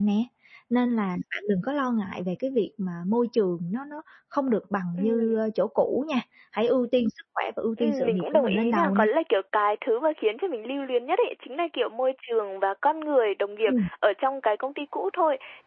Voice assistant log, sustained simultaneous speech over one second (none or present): present